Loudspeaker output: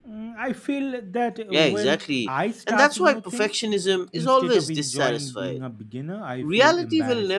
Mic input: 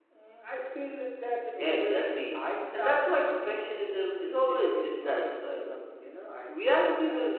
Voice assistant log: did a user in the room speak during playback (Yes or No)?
No